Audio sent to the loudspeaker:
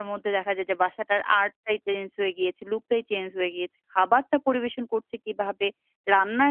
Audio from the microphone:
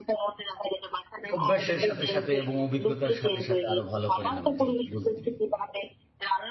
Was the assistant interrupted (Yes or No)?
Yes